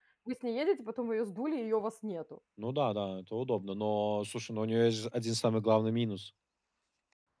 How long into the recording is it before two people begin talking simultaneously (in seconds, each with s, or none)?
none